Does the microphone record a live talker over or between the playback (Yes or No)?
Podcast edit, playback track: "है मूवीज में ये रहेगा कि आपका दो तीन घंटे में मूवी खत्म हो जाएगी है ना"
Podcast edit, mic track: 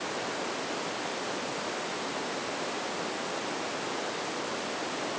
No